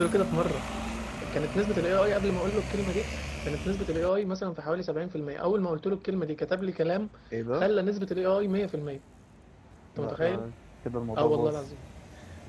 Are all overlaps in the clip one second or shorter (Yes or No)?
Yes